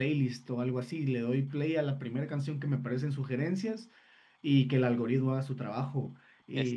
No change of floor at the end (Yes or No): Yes